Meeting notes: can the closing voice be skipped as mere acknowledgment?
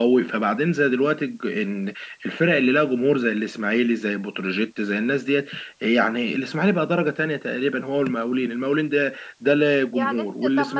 No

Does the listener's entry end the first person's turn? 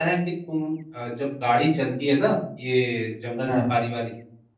No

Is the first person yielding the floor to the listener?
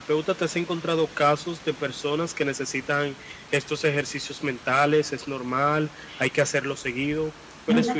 Yes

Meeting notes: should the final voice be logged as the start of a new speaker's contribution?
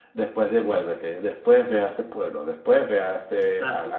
Yes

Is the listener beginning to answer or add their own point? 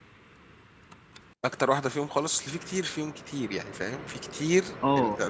Yes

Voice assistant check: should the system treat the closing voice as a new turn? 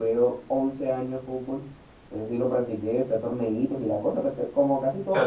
Yes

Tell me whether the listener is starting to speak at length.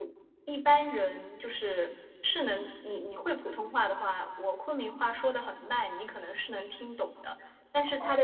No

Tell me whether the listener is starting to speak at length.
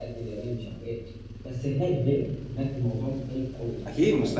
Yes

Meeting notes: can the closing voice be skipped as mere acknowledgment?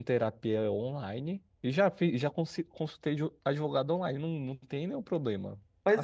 No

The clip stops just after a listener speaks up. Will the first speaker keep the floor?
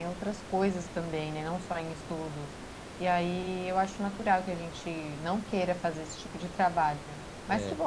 Yes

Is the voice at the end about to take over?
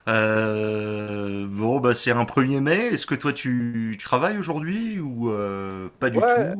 Yes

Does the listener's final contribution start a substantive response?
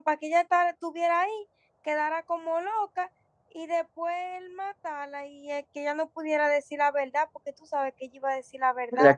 Yes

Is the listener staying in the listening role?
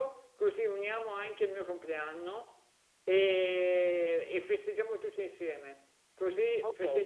No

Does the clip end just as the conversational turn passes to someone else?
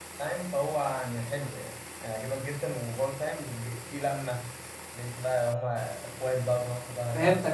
Yes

